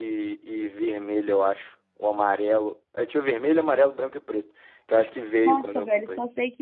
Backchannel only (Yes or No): No